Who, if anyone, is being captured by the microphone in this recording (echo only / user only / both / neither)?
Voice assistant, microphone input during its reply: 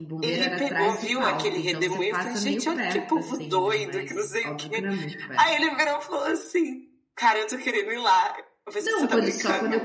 both